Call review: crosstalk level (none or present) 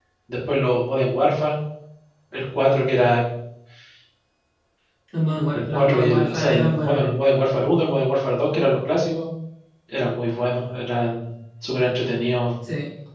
present